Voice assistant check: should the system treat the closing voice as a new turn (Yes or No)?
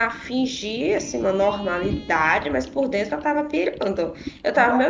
No